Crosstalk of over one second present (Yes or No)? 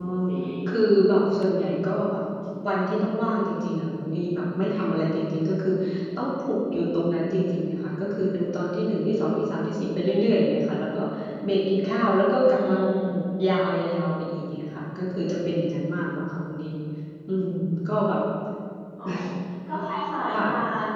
No